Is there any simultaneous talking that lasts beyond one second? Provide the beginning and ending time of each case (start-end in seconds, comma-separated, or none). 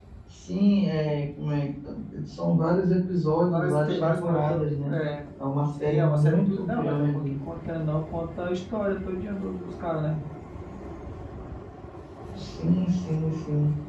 3.5-4.9, 5.8-7.3